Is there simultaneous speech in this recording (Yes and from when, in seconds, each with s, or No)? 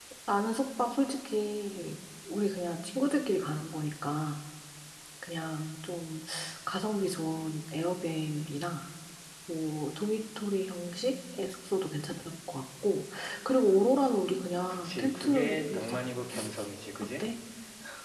Yes, from 14.7 s